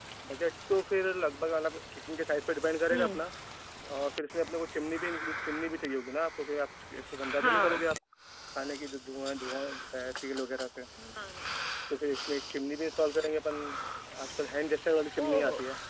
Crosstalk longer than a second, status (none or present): none